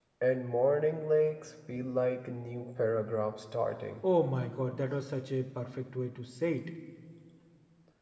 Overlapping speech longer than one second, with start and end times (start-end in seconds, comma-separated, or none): none